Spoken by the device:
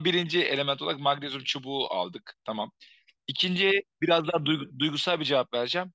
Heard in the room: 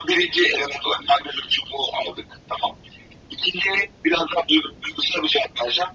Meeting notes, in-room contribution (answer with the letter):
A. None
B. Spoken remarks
A